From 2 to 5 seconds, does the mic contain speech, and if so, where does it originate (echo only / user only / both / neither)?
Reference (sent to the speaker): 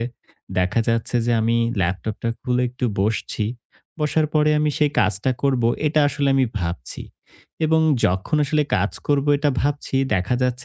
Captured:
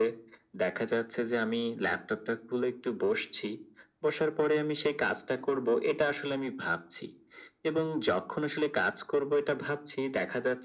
echo only